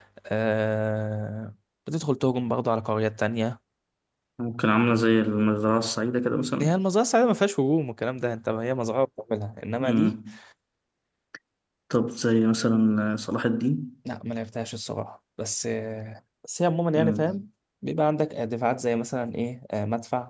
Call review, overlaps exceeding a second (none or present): none